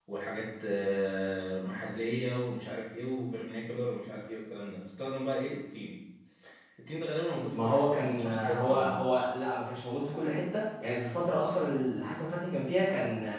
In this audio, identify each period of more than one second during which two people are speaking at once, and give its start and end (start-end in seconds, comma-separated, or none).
7.5-9.0